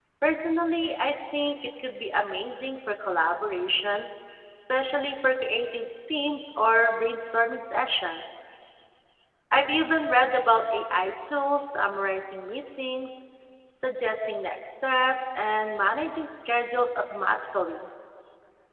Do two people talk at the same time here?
No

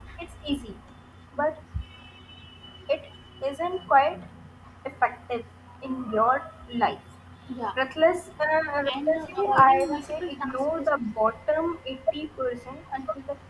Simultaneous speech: Yes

